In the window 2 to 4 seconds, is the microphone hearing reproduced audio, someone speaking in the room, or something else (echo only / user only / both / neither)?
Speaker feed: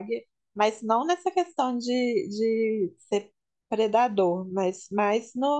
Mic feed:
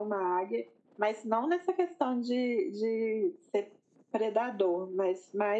echo only